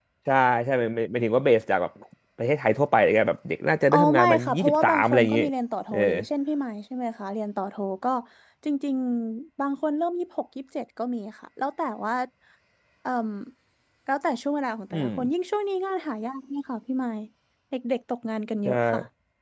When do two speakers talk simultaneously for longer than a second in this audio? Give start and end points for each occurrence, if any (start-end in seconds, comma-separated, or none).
3.9-5.4